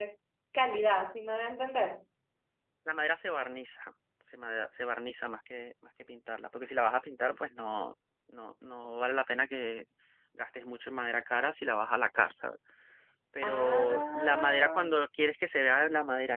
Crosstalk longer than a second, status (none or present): present